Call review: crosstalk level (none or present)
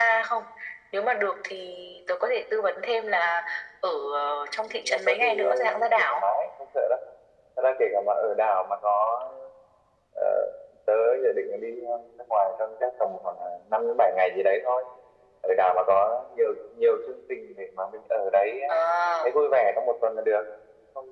present